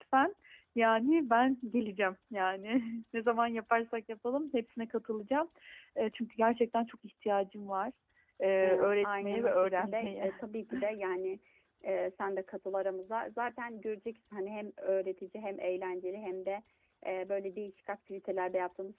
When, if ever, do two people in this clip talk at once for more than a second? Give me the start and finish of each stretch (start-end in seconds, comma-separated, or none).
8.6-10.3